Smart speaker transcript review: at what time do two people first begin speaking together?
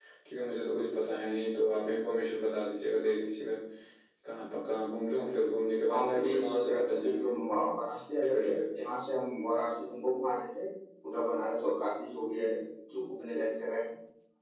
6 s

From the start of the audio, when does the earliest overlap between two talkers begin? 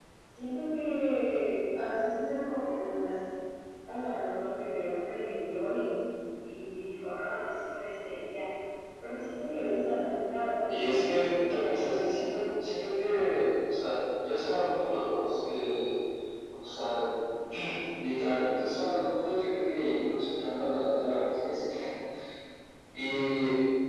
11 s

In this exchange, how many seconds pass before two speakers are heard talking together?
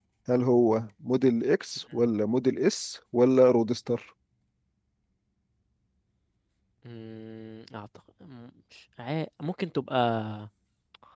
none

